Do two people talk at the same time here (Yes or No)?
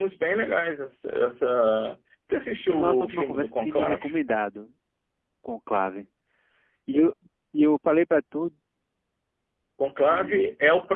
Yes